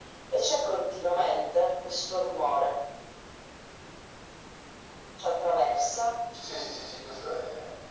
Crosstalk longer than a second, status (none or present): none